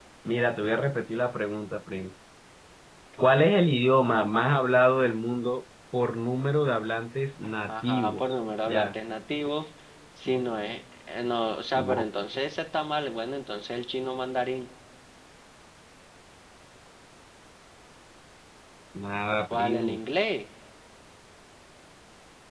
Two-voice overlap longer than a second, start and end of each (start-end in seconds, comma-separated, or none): 7.7-8.9